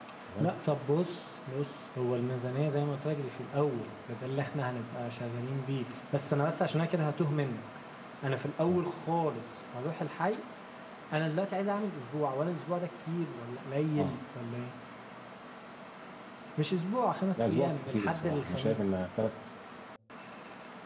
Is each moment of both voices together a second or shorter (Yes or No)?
No